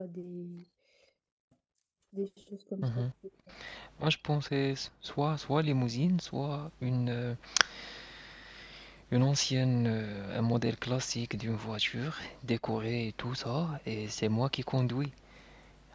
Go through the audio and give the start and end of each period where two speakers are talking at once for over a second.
none

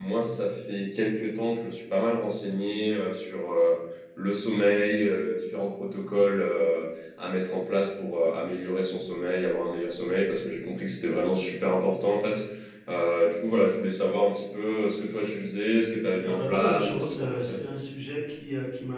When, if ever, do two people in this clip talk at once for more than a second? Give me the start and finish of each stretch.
16.2-17.6

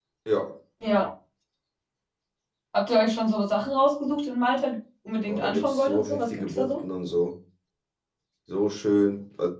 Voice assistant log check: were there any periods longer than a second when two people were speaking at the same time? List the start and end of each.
5.3-6.8

